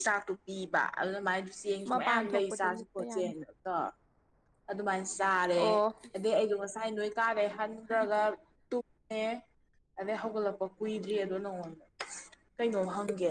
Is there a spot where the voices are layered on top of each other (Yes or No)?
Yes